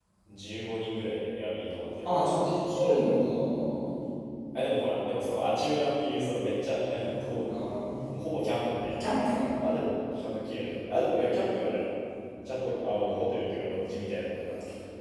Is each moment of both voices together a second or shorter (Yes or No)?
Yes